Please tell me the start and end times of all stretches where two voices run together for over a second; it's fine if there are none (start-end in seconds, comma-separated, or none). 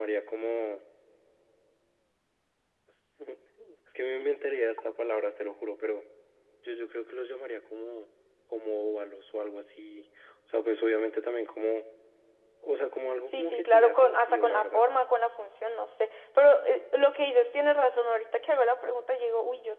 13.3-14.8